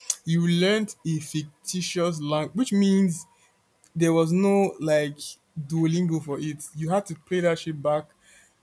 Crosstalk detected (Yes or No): No